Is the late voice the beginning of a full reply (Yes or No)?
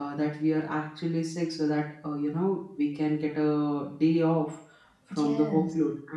No